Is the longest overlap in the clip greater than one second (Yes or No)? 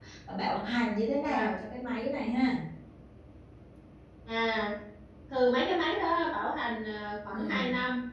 No